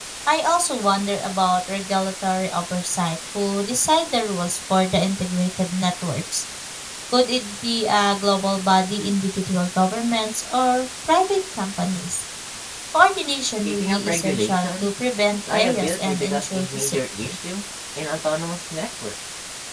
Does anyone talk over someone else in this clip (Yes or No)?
Yes